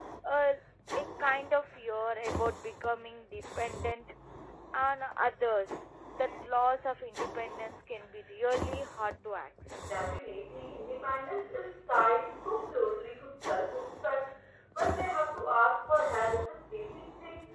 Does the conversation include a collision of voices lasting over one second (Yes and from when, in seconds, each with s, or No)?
No